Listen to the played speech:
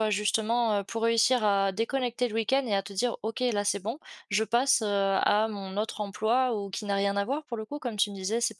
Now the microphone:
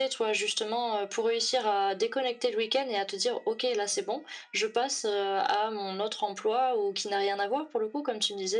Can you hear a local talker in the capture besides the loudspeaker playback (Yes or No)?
No